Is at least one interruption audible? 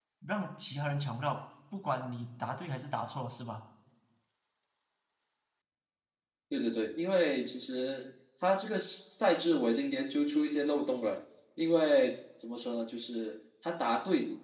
No

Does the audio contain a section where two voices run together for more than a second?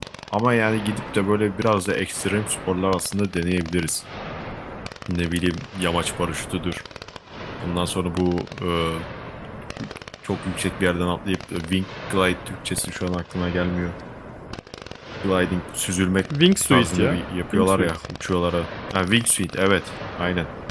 Yes, from 16.7 s

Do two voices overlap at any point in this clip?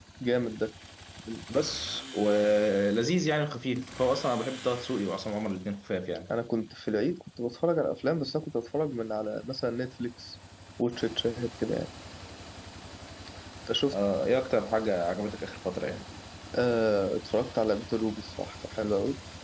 No

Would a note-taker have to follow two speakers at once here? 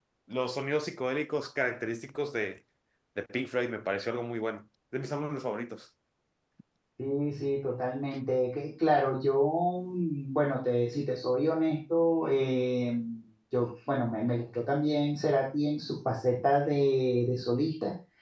No

